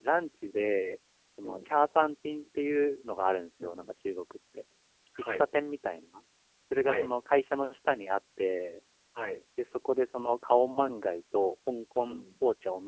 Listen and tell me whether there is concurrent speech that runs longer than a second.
No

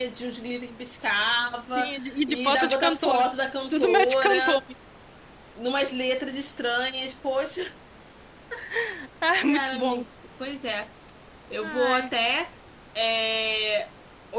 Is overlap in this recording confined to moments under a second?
No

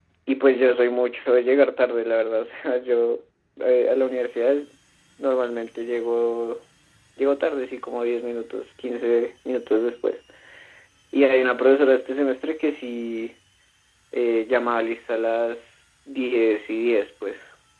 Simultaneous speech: No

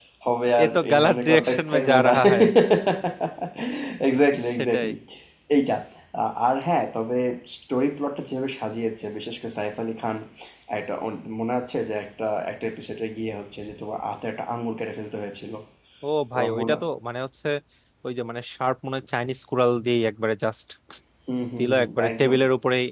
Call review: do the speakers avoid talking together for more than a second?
No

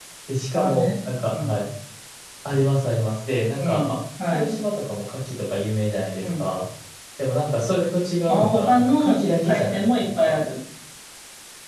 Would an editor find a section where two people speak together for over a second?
Yes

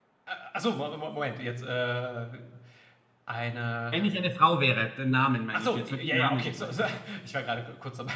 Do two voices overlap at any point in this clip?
Yes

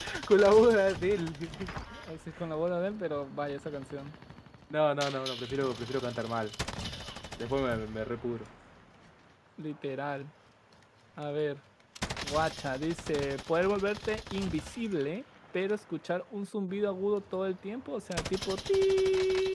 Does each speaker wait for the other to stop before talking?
Yes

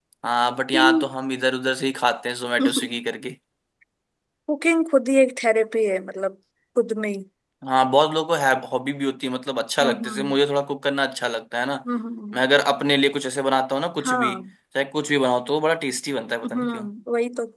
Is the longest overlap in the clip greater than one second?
No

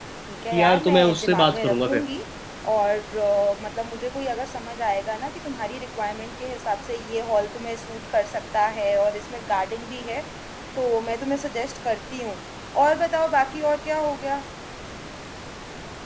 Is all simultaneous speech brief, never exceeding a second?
No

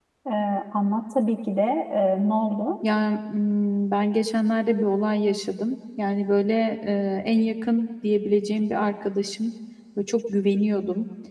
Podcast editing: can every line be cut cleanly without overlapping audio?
Yes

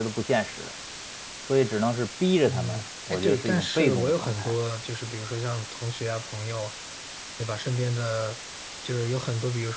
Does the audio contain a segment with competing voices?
Yes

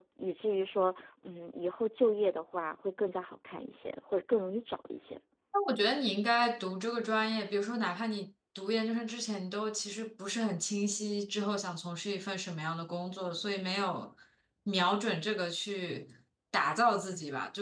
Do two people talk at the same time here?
No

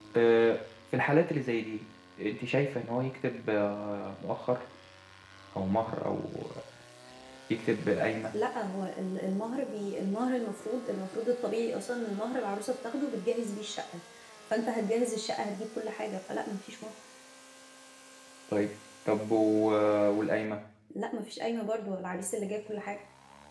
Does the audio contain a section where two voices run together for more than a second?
No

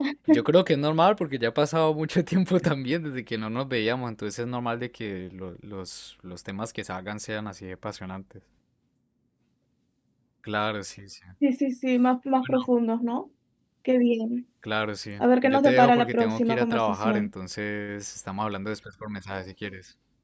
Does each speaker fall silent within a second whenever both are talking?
No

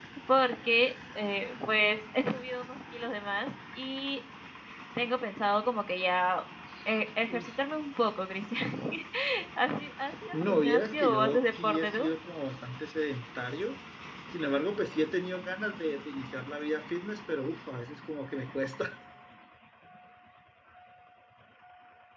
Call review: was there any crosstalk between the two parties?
Yes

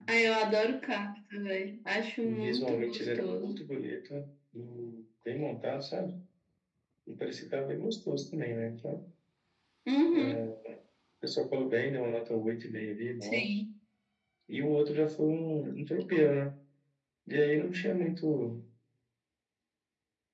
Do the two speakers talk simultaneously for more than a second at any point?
Yes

